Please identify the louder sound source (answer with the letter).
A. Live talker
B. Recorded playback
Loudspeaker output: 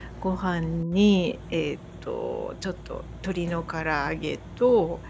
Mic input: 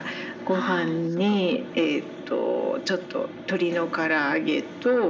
B